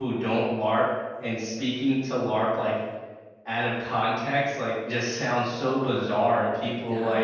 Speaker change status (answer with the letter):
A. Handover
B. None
B